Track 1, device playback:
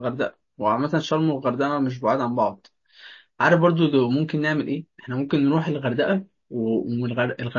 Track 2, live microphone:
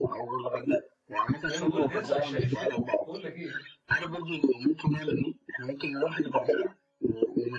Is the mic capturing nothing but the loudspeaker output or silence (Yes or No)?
No